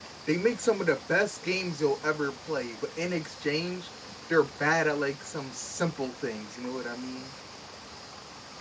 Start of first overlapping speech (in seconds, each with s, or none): none